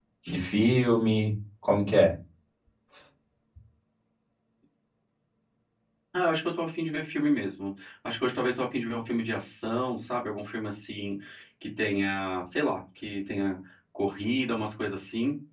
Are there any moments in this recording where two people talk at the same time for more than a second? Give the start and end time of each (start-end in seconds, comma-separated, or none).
none